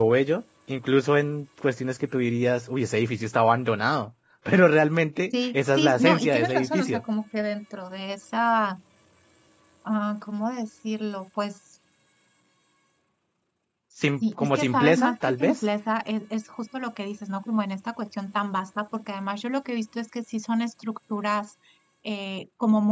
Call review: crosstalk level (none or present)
present